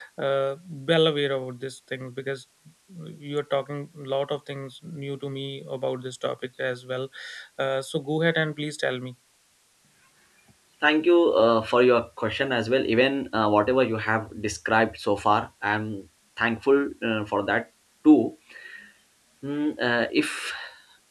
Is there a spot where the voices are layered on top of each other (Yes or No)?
No